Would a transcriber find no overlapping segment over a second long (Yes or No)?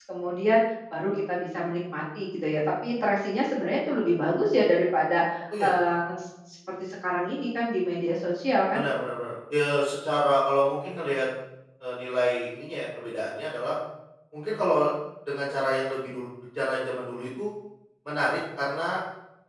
Yes